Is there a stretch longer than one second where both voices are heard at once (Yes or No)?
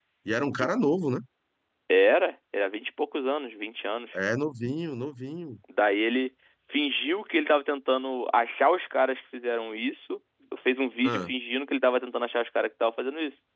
No